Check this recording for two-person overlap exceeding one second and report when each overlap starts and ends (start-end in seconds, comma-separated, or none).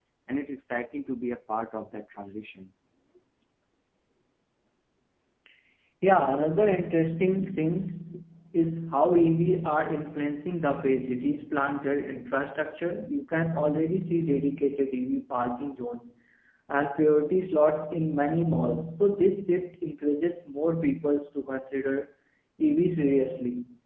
none